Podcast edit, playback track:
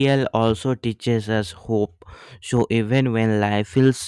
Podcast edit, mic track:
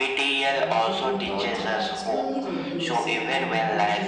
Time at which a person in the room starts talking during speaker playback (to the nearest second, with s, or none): 0 s